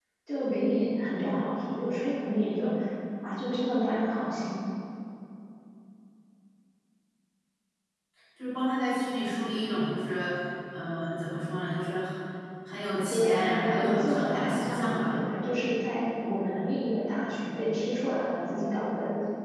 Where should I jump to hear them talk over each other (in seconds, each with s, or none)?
13.1 s